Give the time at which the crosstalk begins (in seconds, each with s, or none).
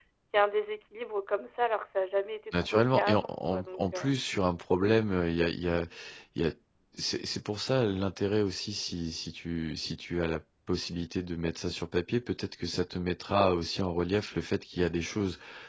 2.5 s